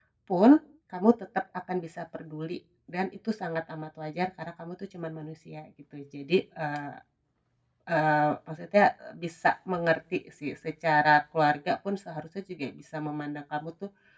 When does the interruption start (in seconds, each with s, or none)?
none